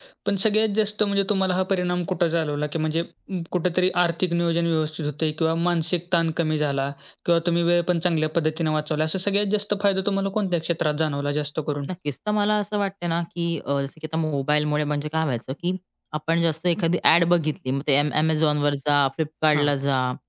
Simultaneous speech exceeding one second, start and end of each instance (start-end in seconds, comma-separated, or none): none